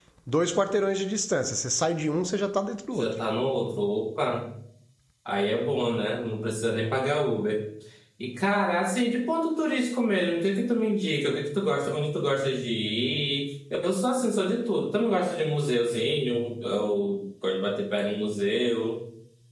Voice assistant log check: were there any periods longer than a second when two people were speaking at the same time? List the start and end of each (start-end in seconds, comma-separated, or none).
none